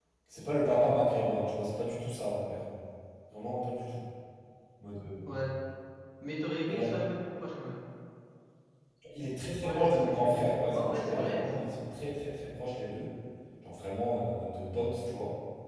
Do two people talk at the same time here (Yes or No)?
Yes